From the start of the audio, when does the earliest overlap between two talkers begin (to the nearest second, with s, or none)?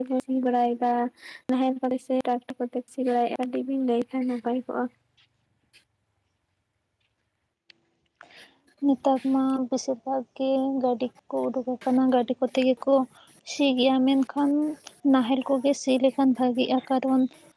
none